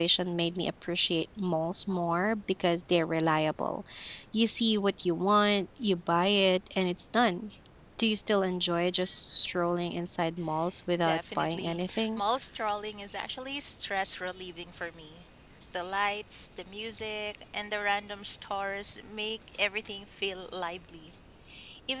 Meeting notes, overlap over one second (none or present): present